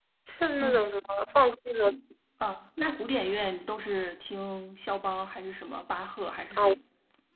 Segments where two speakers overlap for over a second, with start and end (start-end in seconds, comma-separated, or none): none